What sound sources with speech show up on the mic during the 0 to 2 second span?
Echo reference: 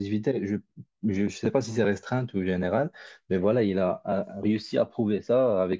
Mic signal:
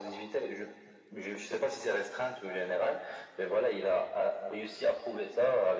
echo only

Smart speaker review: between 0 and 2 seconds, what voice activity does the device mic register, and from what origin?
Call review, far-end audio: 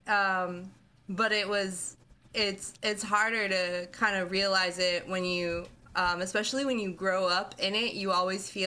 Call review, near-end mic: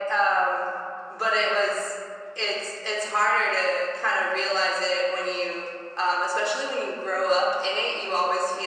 echo only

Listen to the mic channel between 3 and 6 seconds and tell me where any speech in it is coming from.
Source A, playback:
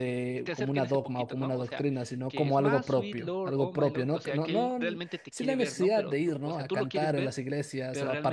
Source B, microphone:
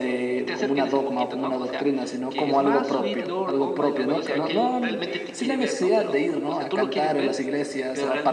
both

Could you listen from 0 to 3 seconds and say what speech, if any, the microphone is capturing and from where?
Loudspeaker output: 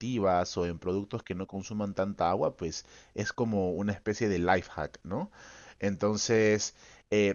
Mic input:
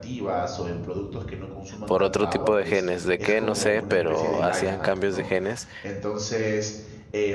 both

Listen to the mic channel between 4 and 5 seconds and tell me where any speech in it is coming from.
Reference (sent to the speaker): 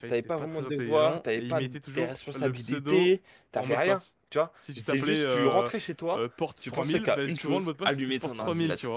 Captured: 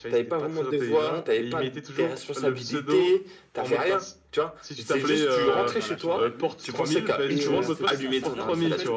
echo only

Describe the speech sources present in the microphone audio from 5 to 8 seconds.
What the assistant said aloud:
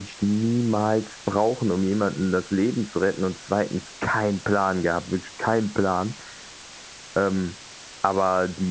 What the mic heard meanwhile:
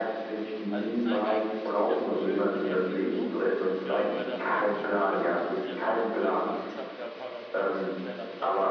both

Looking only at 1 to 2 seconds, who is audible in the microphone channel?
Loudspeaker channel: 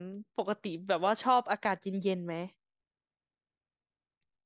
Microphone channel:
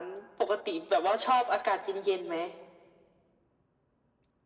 echo only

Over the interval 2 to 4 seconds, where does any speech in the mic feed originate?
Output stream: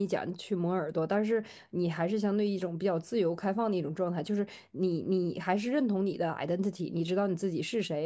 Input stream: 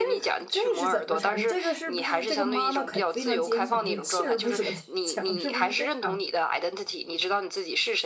both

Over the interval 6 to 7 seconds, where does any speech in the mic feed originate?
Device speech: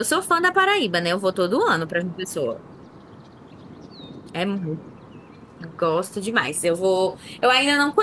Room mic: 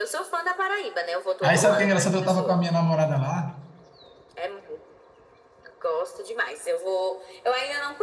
echo only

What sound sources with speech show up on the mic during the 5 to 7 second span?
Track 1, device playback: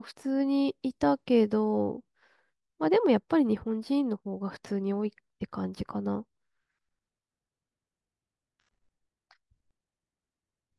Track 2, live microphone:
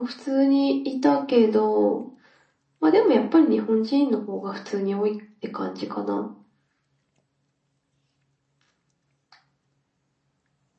echo only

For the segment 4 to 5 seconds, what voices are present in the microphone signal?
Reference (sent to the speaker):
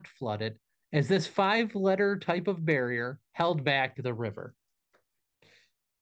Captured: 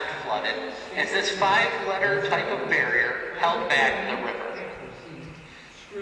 both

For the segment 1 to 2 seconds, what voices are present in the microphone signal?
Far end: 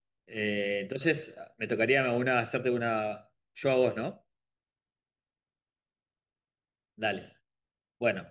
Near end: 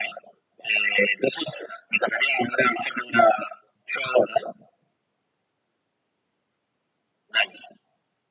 echo only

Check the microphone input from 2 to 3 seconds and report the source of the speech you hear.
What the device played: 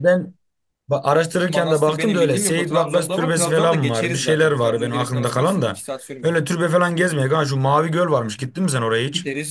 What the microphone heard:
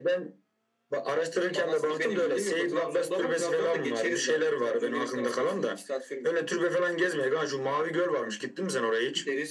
echo only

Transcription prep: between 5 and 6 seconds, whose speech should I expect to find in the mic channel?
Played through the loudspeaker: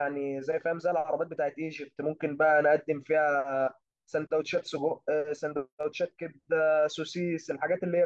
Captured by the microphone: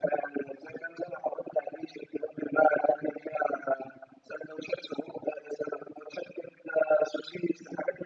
echo only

